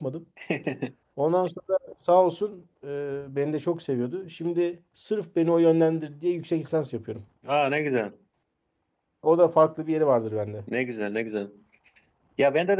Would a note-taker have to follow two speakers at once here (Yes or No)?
No